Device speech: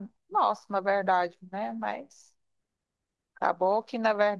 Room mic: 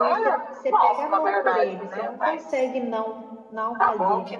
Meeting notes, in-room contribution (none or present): present